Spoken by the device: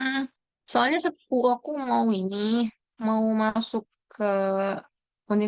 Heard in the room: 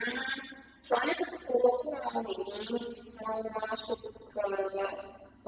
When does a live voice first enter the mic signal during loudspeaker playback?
none

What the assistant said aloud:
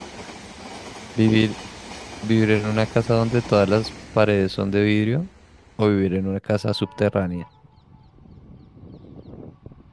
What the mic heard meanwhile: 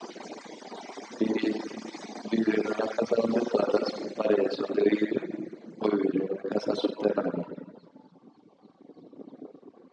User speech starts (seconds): none

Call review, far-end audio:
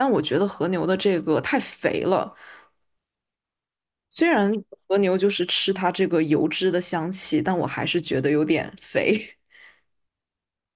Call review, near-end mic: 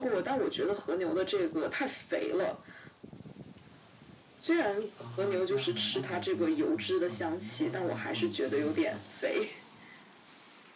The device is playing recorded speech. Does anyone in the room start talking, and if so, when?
4.9 s

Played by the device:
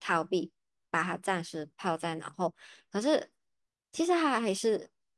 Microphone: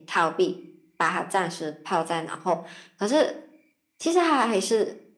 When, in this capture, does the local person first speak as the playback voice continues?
none

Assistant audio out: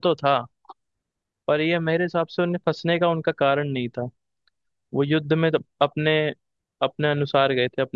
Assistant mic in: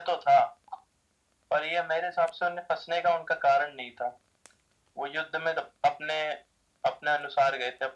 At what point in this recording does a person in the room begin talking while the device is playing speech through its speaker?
none

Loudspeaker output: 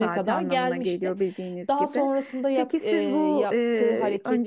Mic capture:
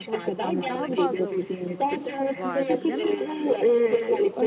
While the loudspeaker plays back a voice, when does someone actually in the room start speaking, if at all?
0.7 s

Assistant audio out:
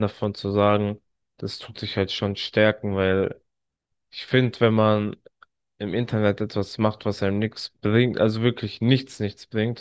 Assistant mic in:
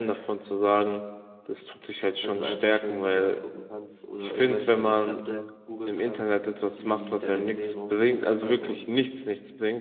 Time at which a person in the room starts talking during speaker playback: 2.2 s

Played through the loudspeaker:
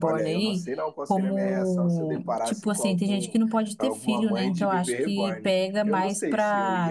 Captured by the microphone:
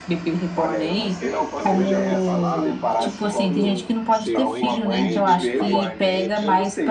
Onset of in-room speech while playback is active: 1.2 s

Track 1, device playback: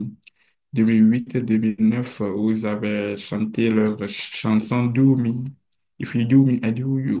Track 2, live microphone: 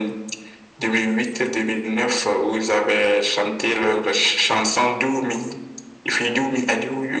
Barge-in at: none

